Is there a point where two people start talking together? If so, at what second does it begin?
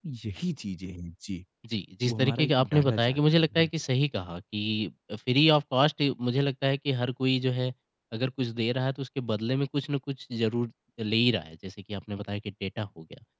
2.0 s

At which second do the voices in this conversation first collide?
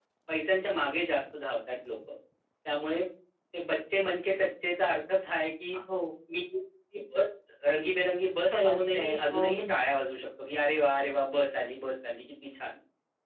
8.5 s

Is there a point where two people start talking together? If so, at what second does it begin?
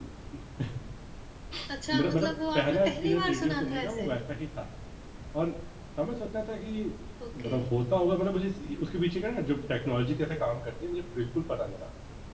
1.9 s

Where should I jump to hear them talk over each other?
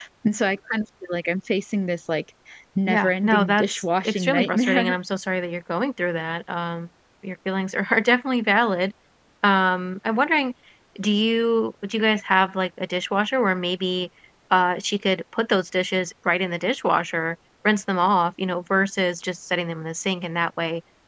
2.9 s

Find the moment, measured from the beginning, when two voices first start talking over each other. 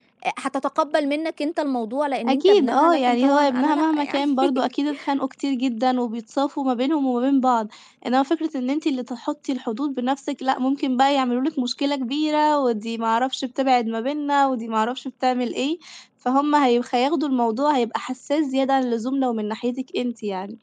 2.2 s

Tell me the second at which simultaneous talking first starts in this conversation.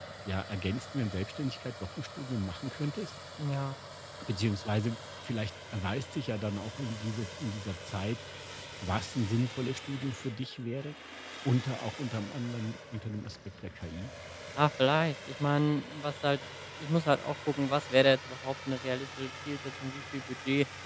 none

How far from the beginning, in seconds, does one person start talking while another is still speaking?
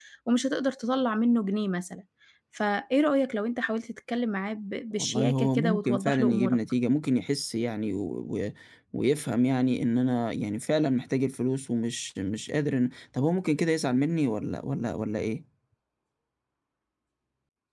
4.9 s

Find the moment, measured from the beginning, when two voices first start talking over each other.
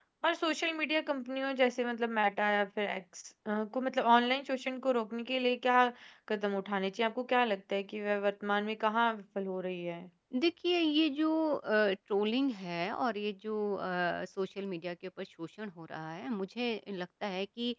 none

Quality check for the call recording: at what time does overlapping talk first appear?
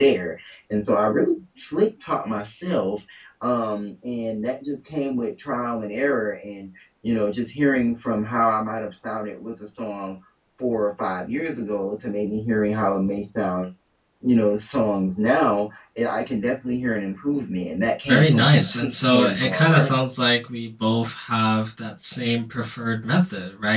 18.1 s

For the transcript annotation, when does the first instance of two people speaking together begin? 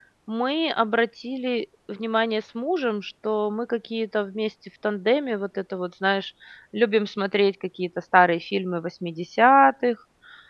none

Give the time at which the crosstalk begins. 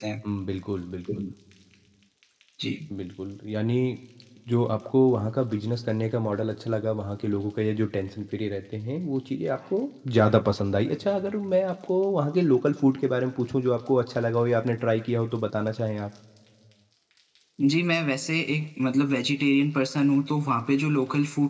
none

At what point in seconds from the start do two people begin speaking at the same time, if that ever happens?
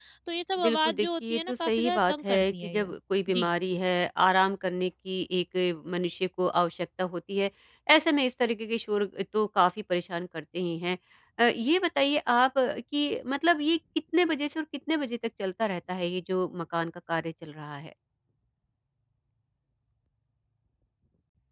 0.6 s

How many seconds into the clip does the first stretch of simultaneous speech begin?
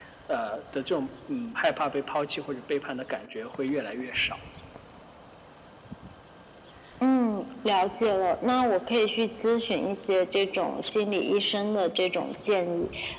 none

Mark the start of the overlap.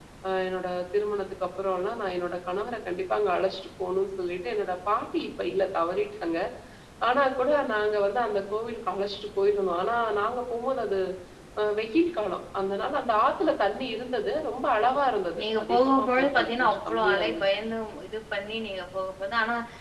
15.3 s

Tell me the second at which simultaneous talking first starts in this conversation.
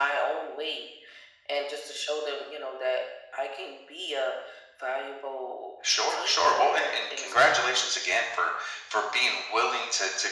6.1 s

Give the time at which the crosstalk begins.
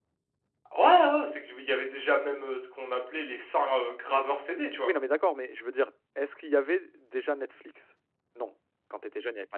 none

